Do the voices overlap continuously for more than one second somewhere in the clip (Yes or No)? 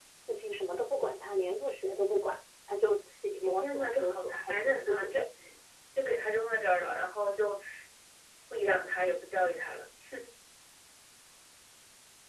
Yes